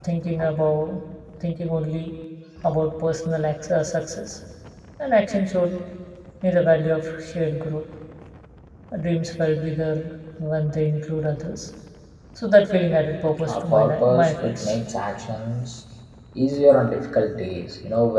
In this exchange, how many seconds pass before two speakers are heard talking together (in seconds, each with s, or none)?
13.5 s